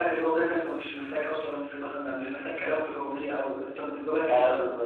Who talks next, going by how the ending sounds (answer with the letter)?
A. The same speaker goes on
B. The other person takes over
B